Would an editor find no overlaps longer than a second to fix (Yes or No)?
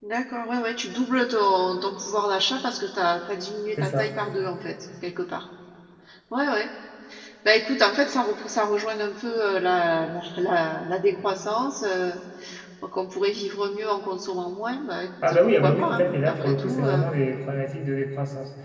No